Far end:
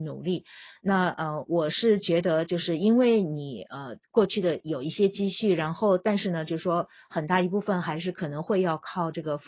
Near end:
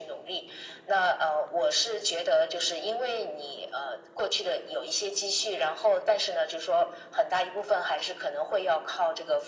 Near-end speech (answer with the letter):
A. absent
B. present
A